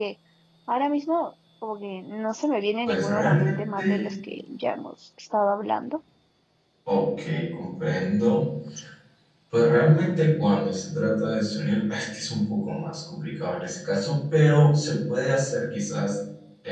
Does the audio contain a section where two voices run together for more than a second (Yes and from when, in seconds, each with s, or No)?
Yes, from 2.9 s